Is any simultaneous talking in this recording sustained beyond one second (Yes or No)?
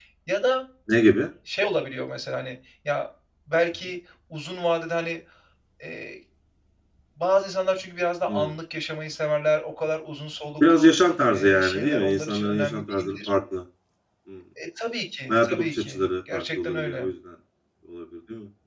Yes